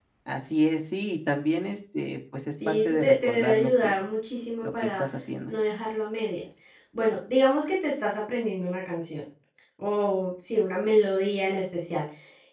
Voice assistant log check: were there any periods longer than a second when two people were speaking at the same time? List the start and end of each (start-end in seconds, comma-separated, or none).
2.7-4.0